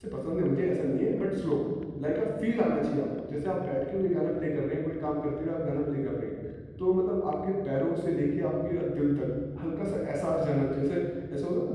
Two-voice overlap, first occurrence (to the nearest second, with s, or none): none